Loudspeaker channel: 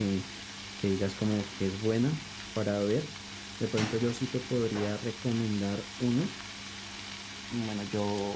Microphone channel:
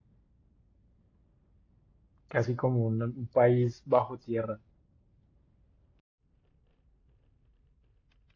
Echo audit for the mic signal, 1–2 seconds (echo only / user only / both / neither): neither